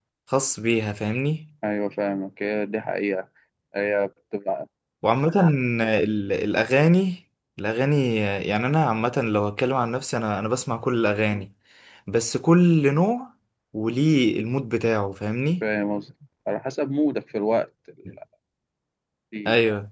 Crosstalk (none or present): none